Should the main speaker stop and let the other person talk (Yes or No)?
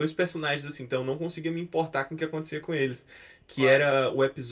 No